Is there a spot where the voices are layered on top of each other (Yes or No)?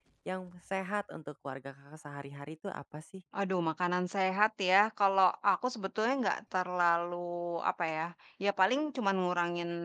No